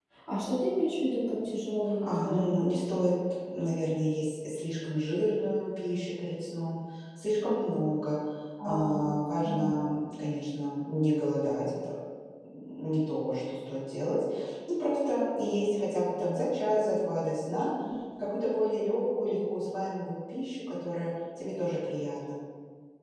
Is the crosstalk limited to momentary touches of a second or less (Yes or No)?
Yes